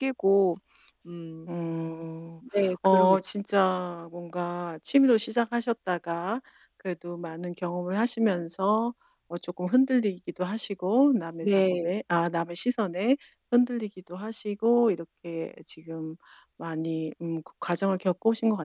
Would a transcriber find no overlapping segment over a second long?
Yes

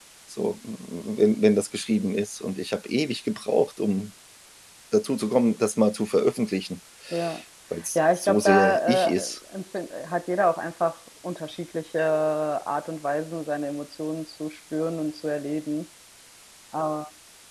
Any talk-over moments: Yes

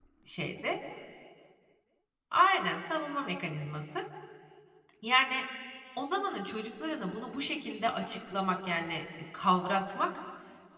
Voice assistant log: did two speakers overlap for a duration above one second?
No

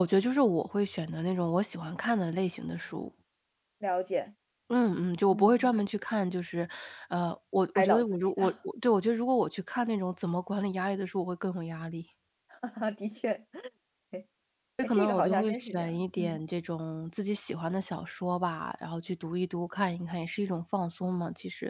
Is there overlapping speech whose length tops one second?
Yes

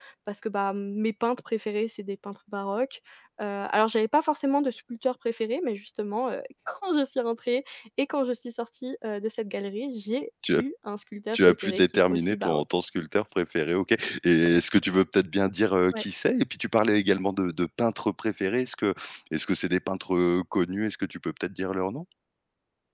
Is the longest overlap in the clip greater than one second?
Yes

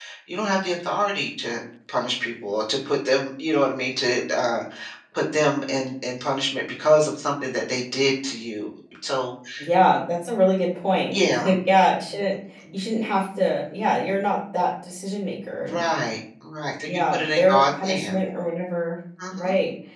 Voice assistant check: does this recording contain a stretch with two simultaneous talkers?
Yes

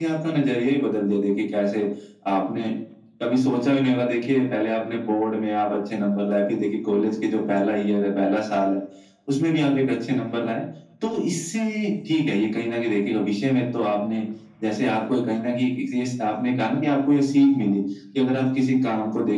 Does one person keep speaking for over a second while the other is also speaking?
No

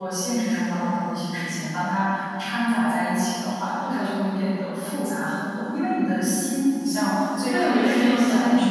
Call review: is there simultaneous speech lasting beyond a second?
Yes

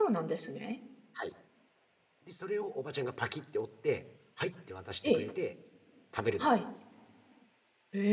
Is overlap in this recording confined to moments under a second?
Yes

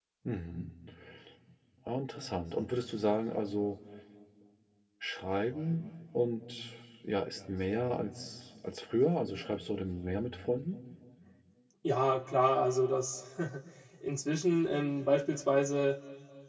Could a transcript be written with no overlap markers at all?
Yes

